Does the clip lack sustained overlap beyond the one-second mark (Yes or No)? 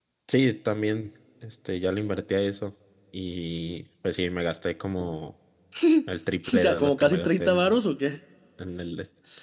No